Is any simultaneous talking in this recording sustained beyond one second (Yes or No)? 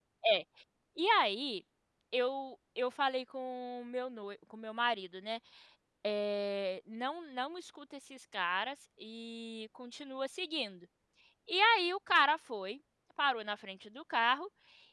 No